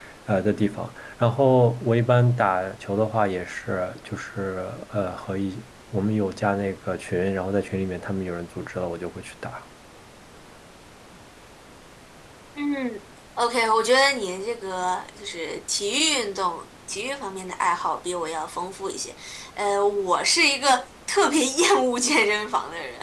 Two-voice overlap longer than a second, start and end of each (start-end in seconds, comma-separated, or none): none